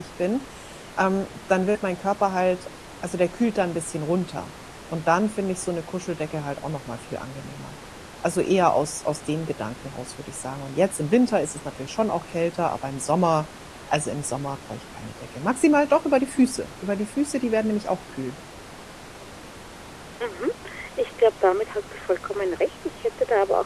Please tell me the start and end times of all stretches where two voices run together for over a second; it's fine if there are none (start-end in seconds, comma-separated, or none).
none